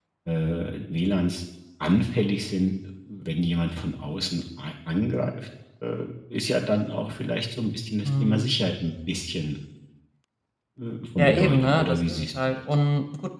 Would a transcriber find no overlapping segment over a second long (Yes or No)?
No